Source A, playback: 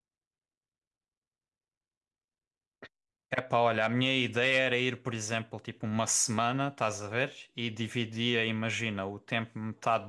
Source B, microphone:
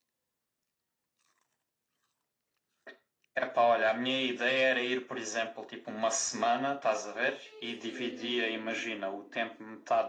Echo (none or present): present